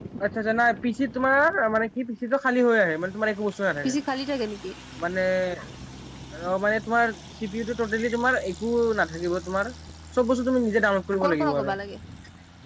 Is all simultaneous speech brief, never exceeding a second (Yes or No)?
Yes